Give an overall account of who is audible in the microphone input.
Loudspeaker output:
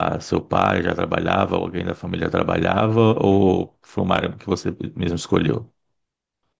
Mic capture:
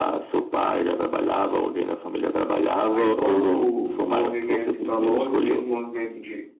both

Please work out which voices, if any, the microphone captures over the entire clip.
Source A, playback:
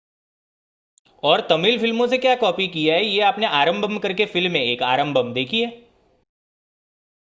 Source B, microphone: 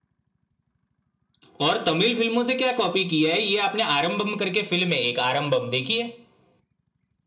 echo only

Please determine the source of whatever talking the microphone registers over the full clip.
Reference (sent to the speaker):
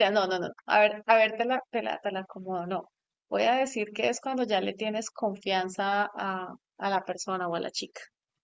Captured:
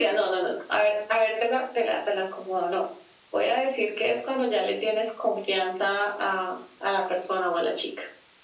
echo only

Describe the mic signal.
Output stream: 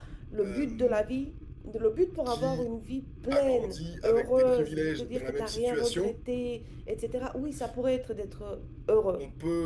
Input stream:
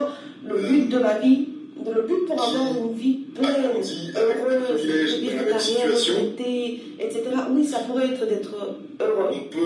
echo only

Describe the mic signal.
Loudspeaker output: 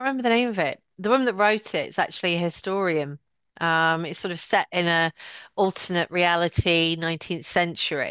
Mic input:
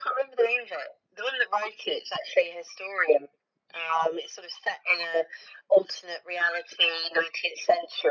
echo only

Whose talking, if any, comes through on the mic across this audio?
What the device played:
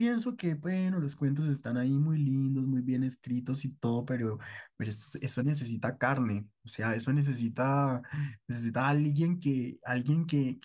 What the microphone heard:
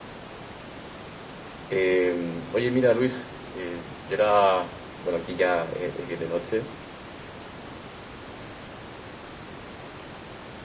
user only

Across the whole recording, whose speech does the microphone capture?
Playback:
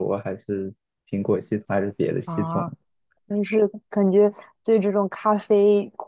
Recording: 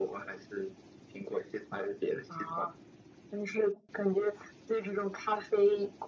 echo only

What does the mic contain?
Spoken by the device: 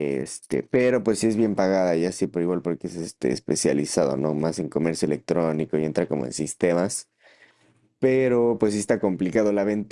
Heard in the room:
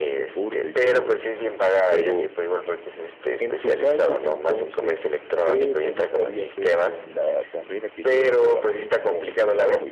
both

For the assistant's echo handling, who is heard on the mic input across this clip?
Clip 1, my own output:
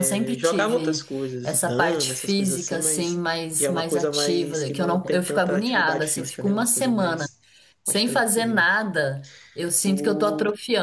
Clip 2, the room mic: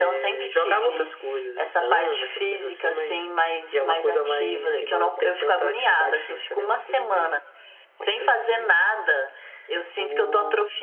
echo only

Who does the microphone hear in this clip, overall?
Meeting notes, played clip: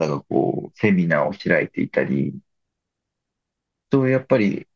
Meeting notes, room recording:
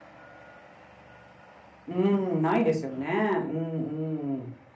user only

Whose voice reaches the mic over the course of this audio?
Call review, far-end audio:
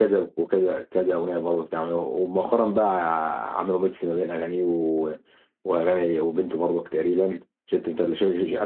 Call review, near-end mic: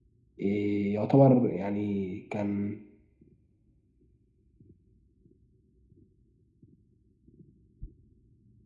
user only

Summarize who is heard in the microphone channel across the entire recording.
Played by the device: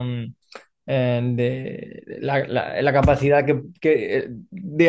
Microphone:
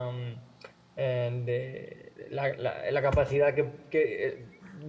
echo only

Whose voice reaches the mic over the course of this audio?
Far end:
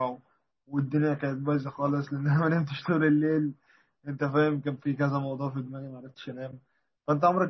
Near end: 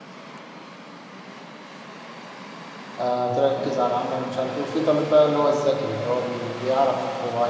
user only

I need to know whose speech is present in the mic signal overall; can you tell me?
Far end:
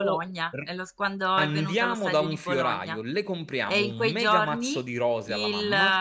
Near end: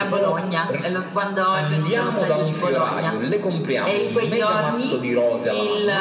echo only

